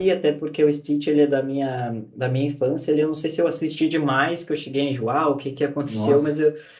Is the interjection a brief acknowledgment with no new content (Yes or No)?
Yes